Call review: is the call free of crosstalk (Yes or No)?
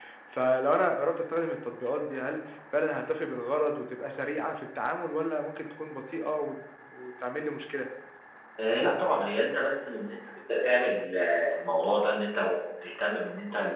Yes